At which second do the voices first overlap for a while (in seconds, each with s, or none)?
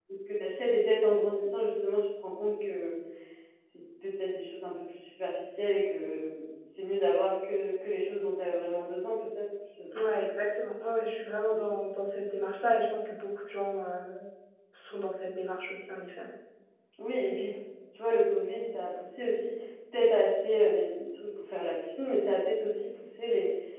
none